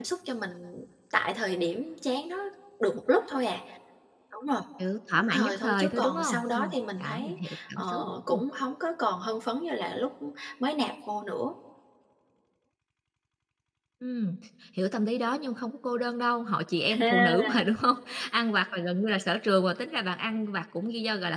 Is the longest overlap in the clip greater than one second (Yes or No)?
Yes